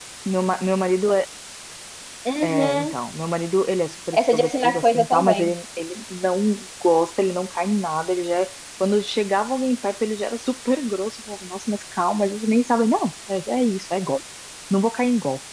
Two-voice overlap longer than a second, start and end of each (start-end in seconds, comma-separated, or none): 4.1-5.5